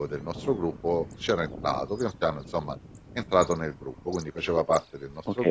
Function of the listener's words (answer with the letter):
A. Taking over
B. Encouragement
A